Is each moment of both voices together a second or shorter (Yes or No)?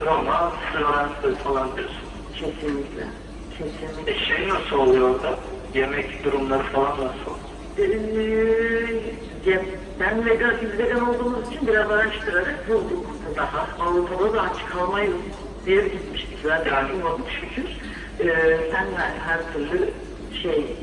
Yes